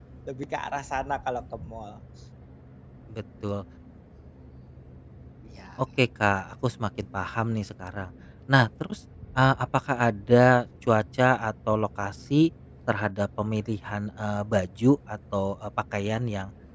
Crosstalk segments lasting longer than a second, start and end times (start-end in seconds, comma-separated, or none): none